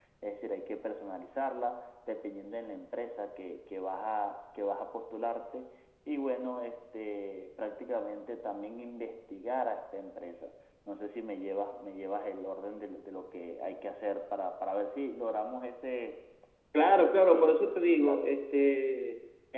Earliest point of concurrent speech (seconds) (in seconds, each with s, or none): 16.8 s